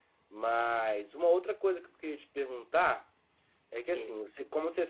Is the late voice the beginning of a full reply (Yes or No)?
No